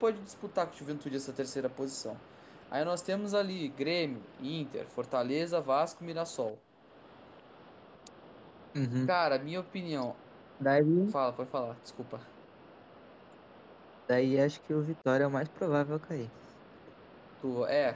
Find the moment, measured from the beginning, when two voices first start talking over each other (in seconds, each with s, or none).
none